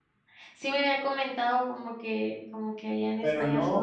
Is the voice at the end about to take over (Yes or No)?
Yes